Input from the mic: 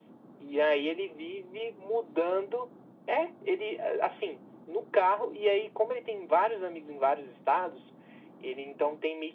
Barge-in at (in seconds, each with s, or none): none